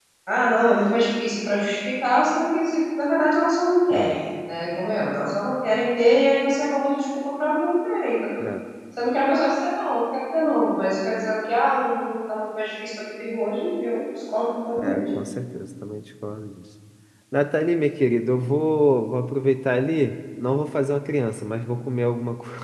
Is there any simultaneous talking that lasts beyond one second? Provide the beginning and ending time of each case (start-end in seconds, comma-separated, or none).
none